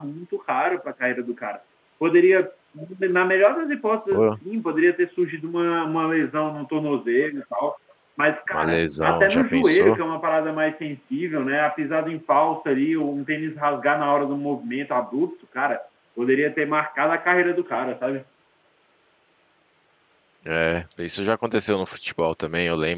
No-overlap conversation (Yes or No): No